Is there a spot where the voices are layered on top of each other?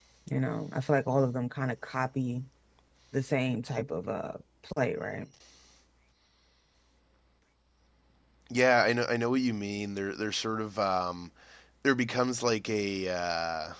No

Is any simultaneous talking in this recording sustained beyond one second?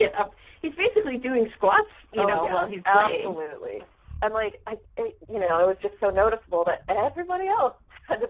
Yes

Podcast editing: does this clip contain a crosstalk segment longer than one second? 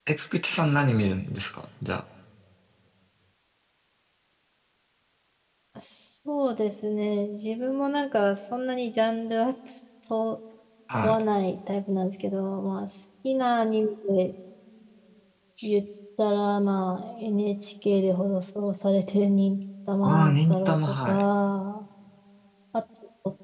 Yes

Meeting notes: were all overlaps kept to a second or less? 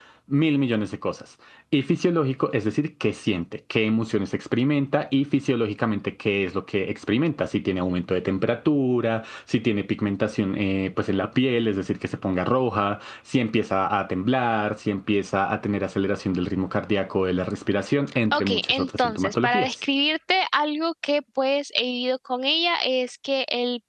No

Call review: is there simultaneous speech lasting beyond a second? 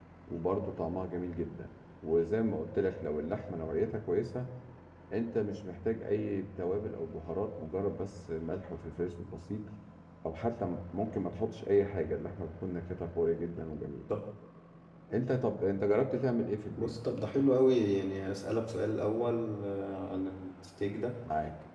No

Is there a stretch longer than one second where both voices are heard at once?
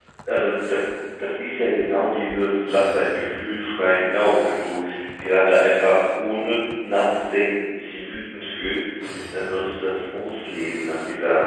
No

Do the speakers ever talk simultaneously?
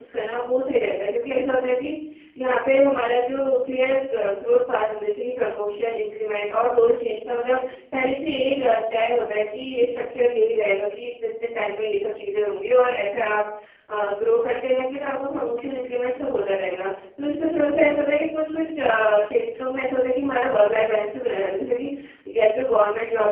No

